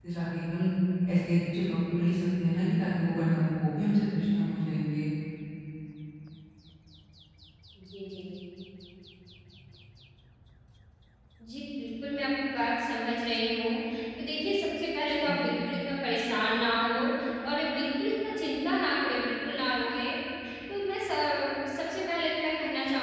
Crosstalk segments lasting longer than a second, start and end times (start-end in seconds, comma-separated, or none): none